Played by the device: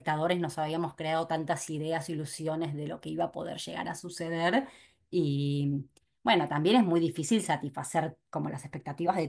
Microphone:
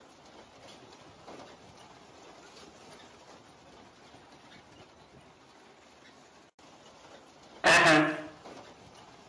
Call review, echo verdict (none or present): none